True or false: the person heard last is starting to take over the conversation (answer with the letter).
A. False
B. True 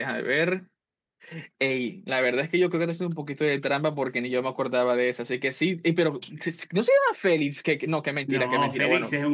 B